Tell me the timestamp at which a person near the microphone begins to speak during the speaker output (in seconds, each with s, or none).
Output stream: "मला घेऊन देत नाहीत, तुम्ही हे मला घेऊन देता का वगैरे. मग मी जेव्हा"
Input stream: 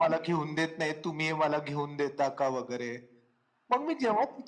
none